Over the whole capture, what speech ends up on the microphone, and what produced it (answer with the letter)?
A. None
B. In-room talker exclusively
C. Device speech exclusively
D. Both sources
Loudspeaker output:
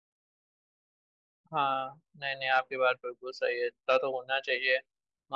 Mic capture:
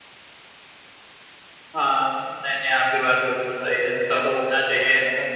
D